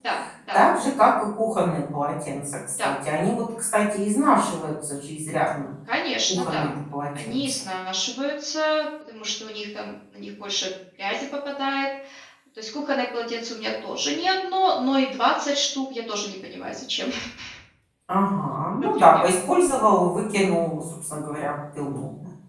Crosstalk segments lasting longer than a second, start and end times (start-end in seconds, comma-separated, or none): none